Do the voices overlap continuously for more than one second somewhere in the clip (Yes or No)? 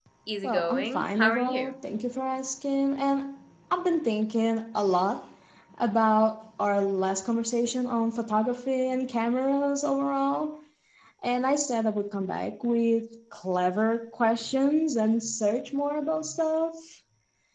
Yes